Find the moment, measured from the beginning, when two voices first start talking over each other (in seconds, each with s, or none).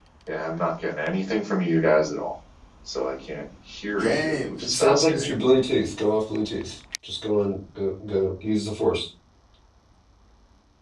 4.0 s